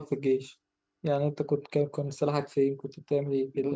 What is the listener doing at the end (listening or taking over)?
taking over